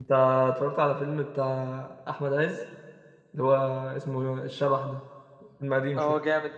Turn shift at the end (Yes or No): Yes